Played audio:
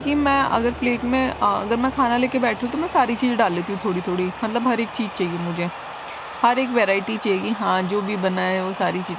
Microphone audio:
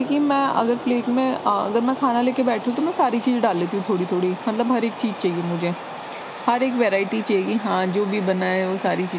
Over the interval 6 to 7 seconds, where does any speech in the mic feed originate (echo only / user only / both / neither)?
echo only